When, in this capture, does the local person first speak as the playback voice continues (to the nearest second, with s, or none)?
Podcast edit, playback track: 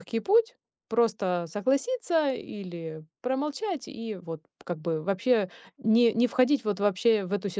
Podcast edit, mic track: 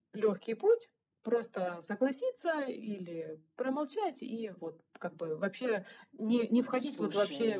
7 s